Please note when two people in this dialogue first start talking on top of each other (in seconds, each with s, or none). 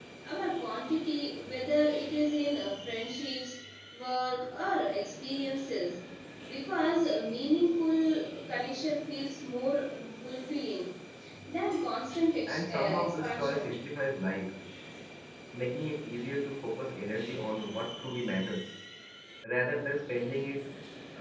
12.5 s